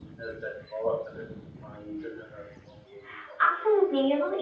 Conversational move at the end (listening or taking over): taking over